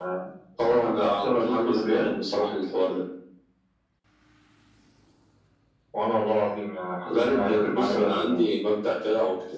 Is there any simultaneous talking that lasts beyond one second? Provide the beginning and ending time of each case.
0.8-2.1, 7.0-8.4

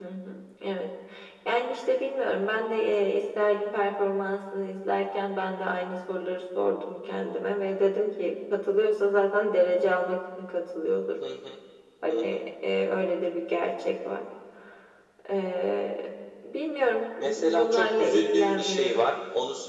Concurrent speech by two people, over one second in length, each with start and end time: 17.2-19.0

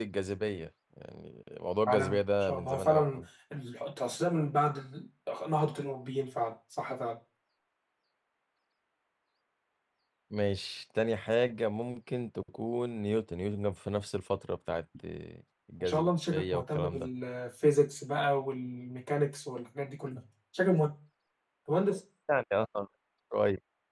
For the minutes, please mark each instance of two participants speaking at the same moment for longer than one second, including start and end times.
1.9-3.2, 15.8-17.1

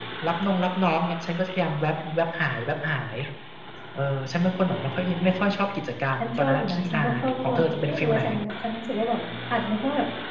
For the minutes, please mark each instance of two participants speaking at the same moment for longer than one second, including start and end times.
6.2-8.2

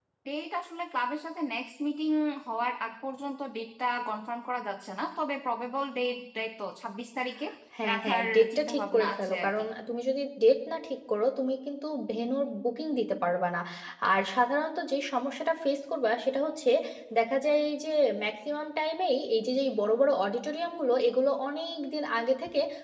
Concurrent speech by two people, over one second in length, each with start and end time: 7.9-9.5

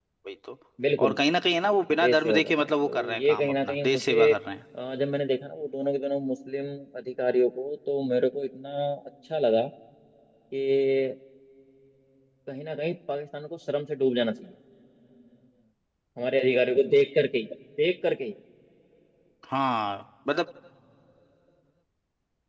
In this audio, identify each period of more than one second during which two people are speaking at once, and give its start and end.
2.0-4.3

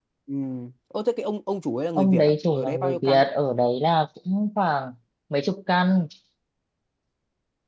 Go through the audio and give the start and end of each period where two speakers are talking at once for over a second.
1.9-3.2

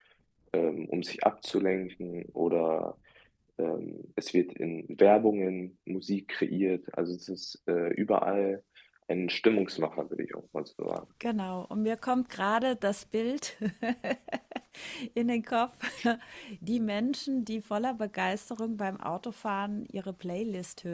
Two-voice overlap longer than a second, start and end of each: none

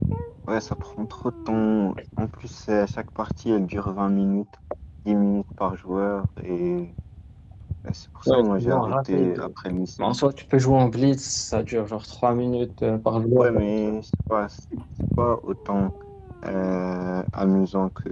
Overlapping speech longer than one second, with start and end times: 8.3-9.5

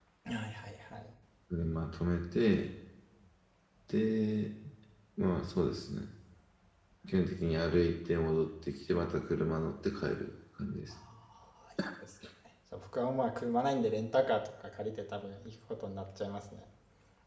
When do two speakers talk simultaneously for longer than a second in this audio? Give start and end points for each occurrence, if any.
none

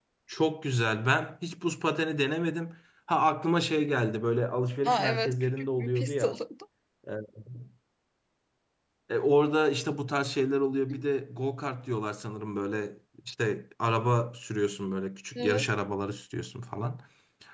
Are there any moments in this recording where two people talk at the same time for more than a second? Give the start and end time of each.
4.8-6.4

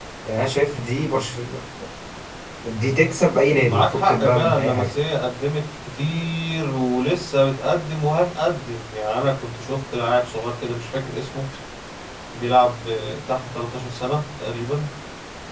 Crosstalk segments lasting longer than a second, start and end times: 3.7-4.9

